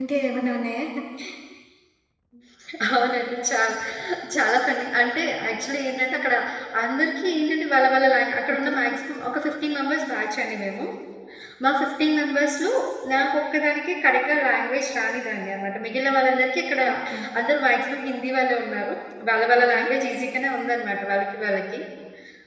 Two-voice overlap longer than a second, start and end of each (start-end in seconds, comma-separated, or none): none